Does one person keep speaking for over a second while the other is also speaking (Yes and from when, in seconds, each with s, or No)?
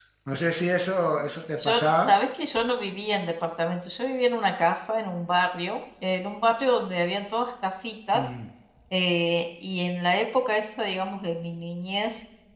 No